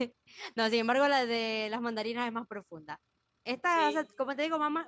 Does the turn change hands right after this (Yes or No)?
No